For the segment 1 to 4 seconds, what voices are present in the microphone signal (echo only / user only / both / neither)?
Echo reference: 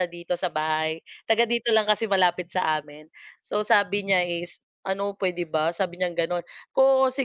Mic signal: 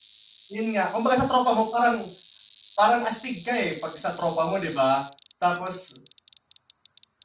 user only